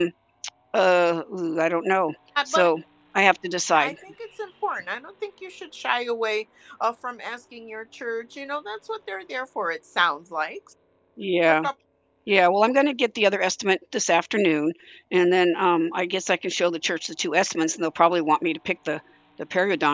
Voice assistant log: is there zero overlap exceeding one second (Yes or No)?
Yes